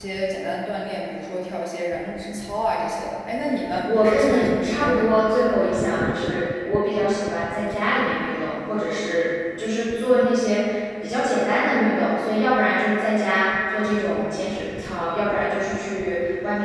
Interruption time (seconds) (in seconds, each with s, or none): 3.8 s